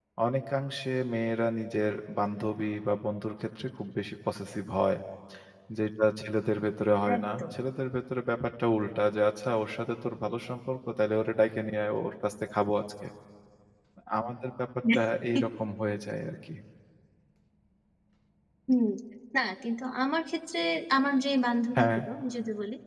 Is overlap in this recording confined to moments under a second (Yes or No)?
Yes